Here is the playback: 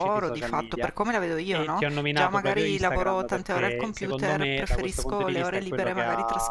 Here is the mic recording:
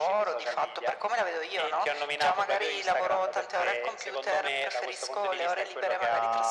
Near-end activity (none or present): none